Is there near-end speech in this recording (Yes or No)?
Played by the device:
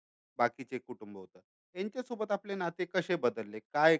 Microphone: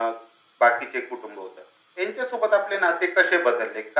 No